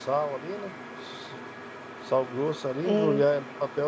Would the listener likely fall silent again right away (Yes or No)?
Yes